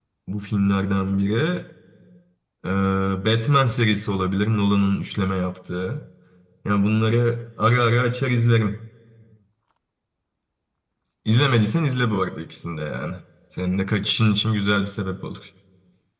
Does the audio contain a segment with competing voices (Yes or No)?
No